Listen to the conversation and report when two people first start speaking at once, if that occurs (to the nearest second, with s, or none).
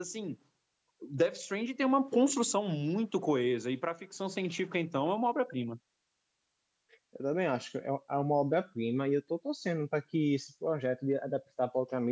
none